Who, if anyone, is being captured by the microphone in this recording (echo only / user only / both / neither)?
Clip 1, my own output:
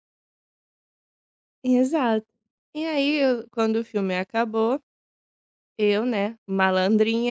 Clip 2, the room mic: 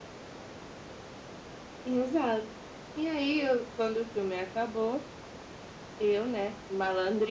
echo only